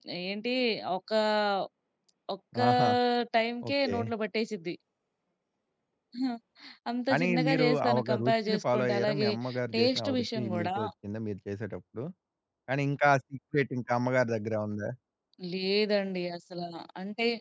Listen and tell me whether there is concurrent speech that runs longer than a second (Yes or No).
Yes